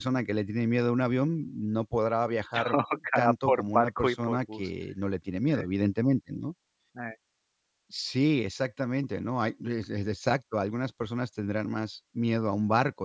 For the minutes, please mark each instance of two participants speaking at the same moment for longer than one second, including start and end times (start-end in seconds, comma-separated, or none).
3.2-4.7